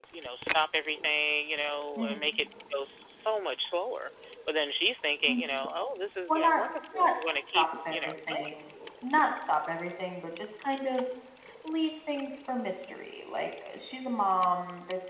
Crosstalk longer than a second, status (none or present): present